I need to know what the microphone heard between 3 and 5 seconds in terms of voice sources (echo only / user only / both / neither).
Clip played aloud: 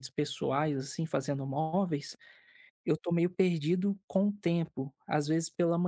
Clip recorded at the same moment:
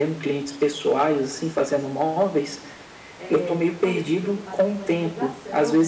both